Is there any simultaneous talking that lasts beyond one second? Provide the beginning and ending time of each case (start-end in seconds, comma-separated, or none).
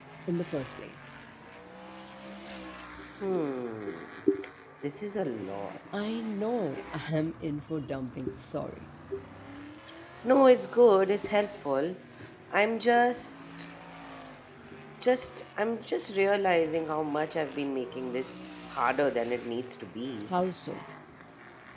none